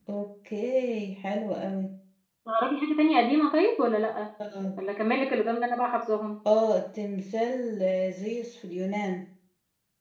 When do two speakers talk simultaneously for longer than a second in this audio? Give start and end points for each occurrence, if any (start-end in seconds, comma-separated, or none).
none